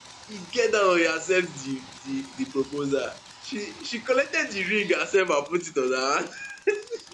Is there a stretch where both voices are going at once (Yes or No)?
No